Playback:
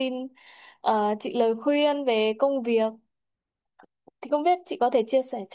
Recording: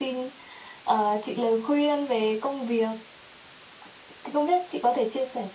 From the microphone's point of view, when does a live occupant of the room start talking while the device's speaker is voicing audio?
none

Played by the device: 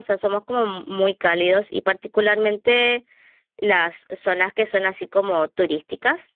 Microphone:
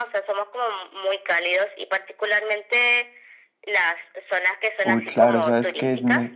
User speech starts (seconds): 4.8 s

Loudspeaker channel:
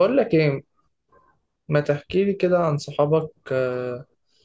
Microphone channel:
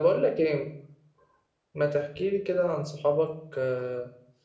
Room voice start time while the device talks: none

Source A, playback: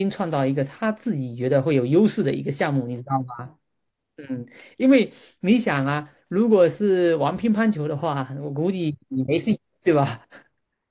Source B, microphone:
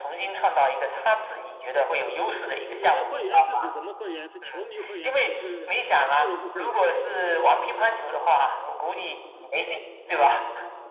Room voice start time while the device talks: 2.5 s

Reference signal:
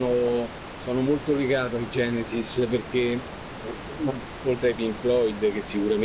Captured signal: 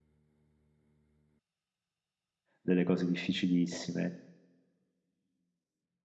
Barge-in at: 2.6 s

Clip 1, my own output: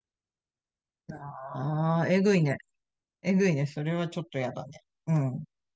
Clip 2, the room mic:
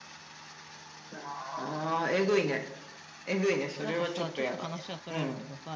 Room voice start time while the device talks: 3.8 s

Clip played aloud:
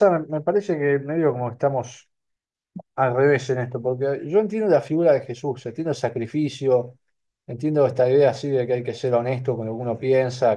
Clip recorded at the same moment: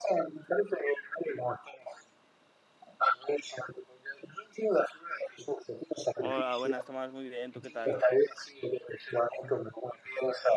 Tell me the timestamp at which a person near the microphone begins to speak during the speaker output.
6.2 s

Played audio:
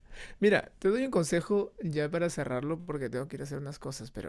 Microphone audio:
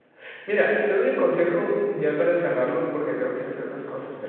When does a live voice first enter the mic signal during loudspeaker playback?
none

